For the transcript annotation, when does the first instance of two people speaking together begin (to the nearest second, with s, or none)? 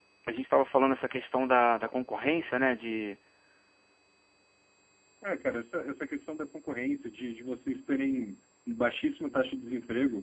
none